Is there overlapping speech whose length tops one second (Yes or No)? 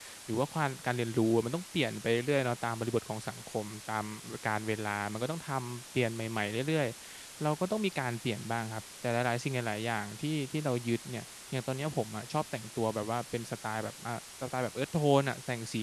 No